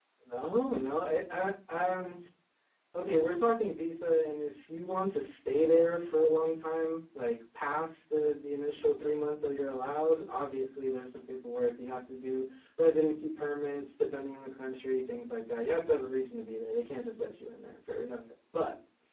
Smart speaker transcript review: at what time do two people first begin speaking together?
none

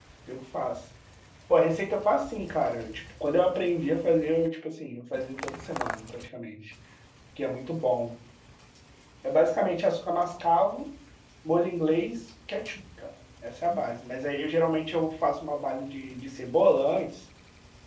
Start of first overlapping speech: none

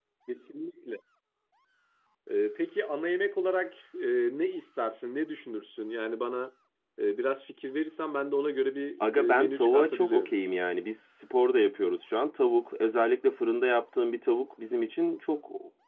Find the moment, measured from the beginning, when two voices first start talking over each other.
9.0 s

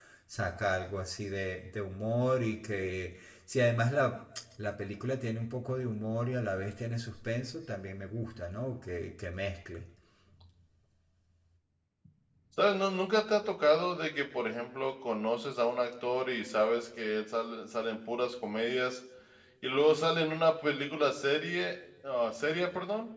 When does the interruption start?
none

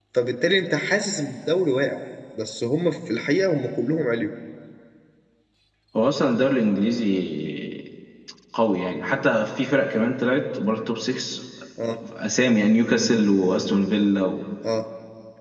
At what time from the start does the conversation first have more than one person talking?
none

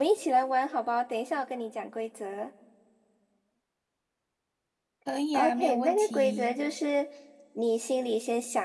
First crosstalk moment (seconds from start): 5.3 s

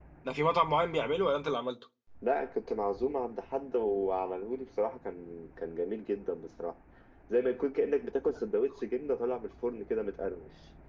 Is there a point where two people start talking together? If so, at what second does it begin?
none

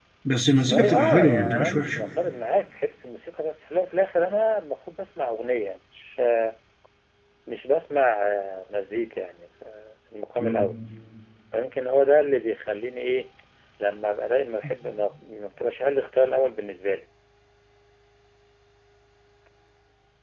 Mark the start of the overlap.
0.7 s

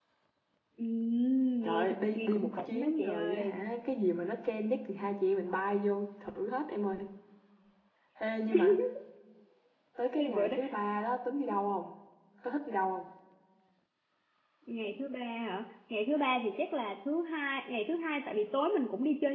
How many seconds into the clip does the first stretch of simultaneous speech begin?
1.6 s

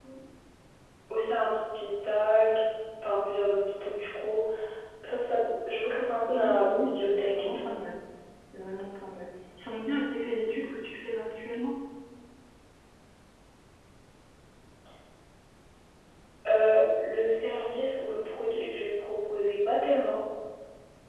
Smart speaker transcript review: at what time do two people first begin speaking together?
6.3 s

